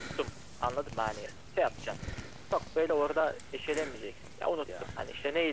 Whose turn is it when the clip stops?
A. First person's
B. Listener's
A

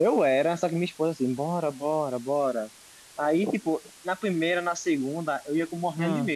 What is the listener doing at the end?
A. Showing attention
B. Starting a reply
A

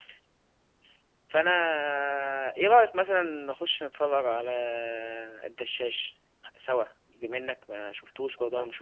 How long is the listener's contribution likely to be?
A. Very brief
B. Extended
B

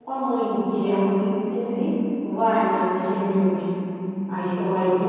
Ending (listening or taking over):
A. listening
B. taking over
A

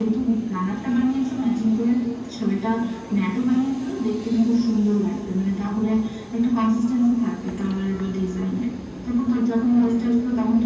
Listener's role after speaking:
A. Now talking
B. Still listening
B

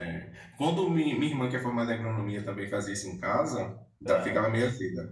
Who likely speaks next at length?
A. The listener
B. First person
B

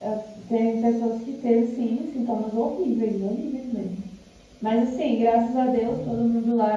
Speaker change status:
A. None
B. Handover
A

